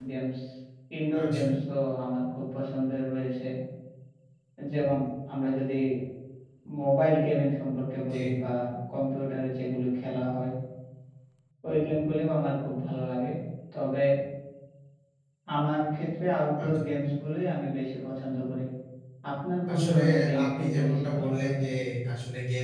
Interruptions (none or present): present